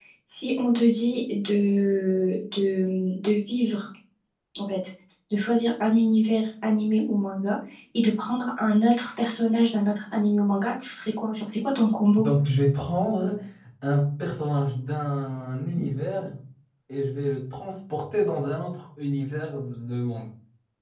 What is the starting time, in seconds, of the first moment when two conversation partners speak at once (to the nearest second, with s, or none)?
none